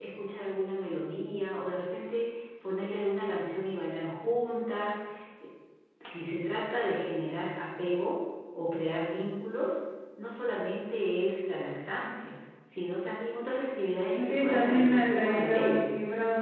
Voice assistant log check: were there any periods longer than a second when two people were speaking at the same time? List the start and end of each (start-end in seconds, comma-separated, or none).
14.2-15.9